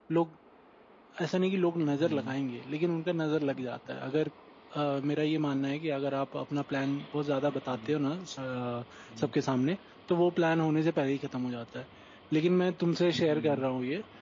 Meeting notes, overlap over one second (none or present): none